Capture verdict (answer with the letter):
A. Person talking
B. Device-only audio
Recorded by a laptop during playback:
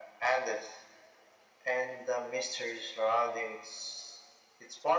B